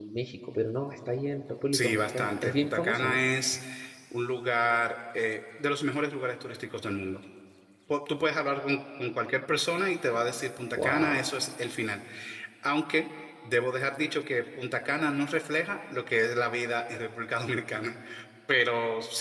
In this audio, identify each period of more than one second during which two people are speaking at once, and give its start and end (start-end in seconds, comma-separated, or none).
1.7-3.2